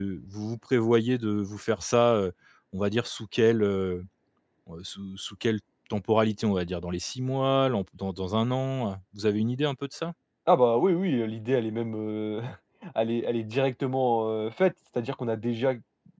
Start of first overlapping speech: none

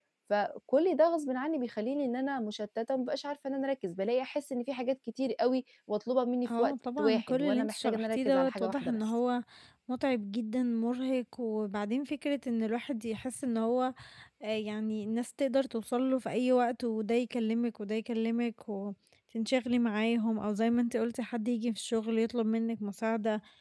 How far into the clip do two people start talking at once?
6.5 s

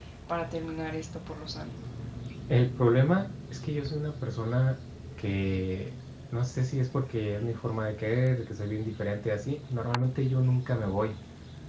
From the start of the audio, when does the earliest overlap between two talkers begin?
none

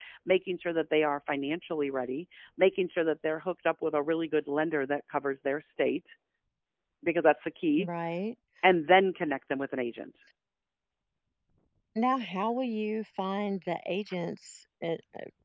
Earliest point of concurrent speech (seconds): none

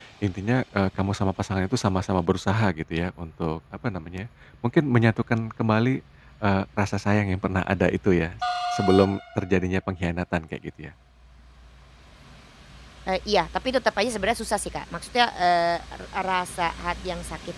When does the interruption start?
none

